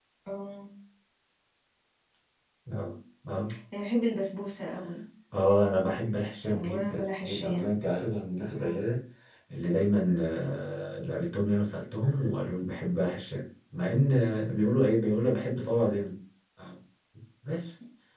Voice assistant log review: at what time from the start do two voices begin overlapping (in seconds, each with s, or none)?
6.5 s